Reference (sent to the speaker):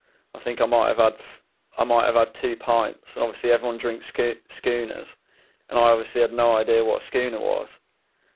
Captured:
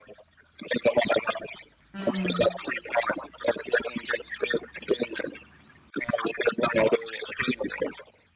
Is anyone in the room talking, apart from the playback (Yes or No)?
Yes